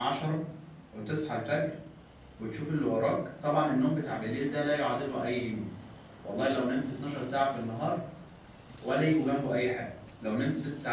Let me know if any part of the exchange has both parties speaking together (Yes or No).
No